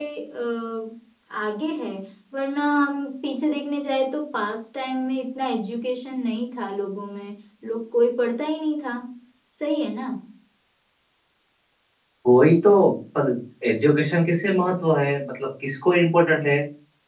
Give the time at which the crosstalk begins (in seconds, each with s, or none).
none